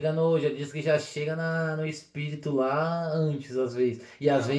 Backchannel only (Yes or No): Yes